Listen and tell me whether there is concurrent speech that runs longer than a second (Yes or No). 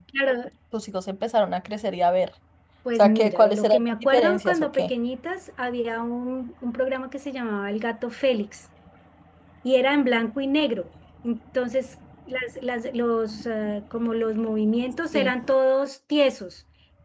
Yes